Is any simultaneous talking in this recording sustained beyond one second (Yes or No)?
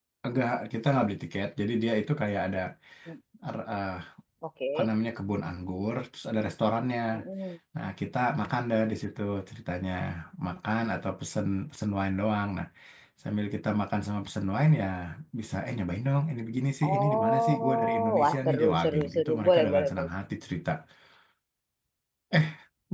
Yes